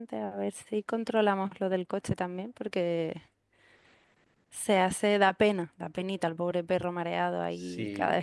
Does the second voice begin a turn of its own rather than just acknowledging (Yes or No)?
Yes